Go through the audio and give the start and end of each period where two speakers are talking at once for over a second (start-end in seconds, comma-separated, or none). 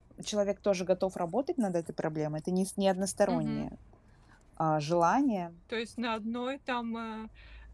none